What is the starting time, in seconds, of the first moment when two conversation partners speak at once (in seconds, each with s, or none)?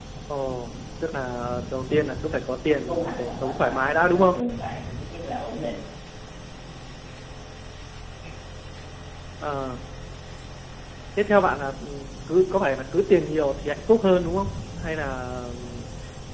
2.9 s